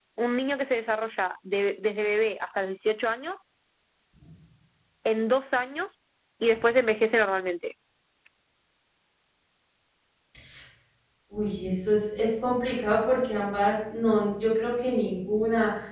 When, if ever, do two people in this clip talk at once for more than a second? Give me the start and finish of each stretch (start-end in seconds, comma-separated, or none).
none